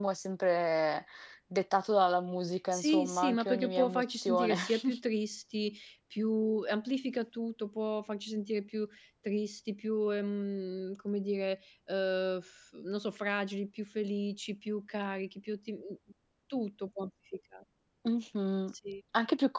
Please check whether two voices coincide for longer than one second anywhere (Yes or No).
Yes